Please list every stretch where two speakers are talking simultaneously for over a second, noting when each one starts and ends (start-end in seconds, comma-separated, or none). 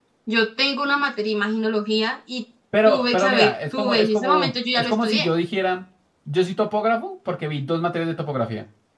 2.9-5.3